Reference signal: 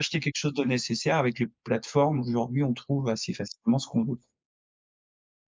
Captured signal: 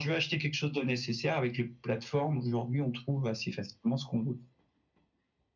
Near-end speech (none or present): none